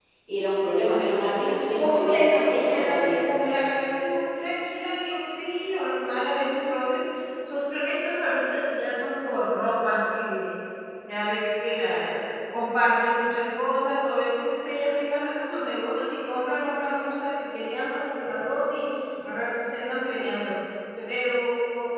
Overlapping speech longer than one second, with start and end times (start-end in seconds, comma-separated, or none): 1.4-3.3